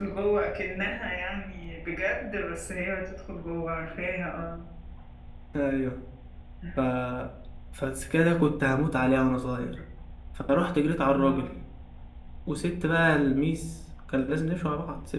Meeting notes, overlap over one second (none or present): none